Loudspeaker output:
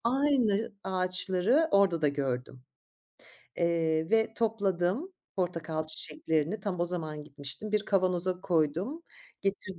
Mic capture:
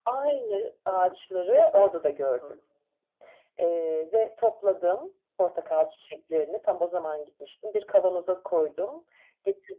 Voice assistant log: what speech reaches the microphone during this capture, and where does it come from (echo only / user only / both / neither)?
both